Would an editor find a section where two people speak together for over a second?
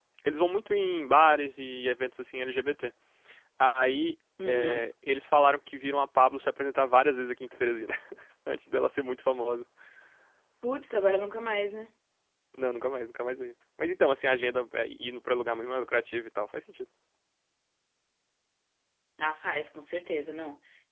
No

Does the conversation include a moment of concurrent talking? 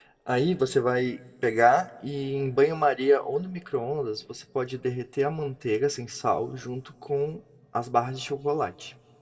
No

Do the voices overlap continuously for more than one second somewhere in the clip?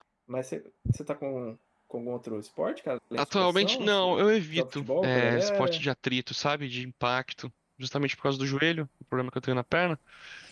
Yes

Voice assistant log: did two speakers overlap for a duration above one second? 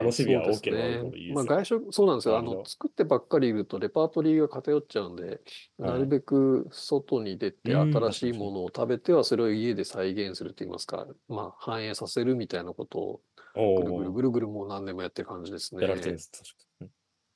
Yes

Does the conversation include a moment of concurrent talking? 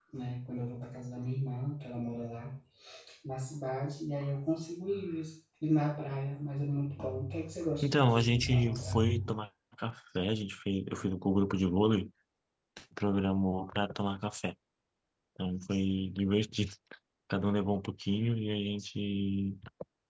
Yes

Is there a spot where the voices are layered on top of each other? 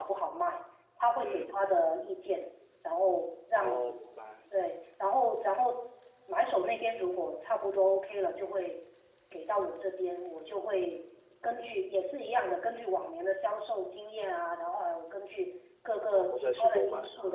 Yes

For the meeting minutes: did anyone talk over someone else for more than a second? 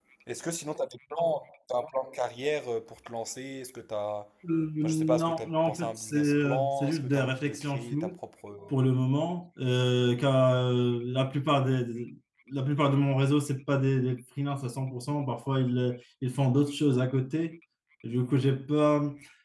Yes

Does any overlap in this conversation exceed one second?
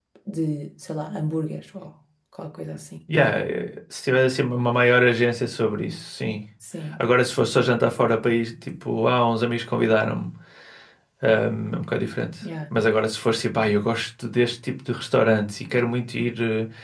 No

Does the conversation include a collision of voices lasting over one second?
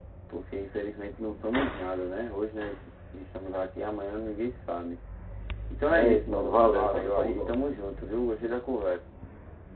Yes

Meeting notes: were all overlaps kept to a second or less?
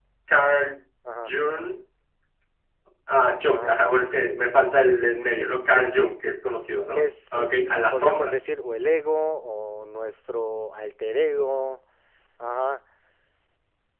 No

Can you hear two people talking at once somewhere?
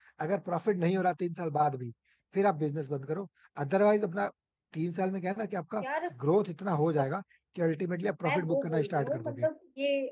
Yes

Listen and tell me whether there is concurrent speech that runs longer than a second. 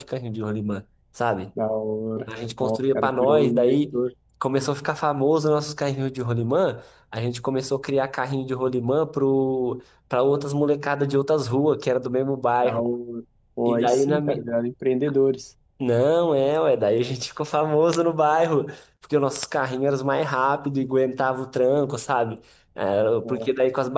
Yes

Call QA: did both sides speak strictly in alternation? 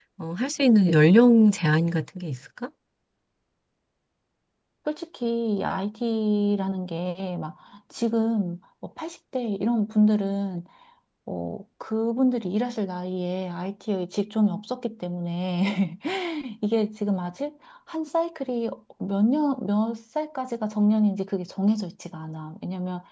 Yes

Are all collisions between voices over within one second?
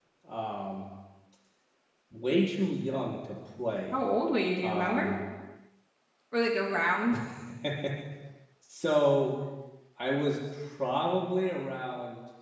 Yes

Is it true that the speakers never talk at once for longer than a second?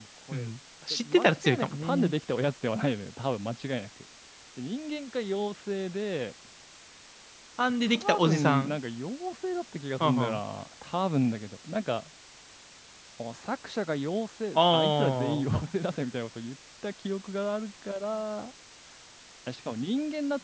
No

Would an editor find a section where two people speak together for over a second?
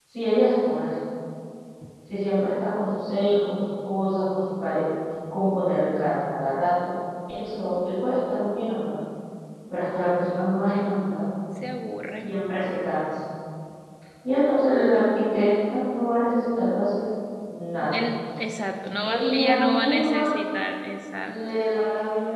Yes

